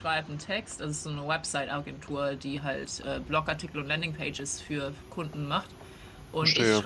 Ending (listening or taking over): listening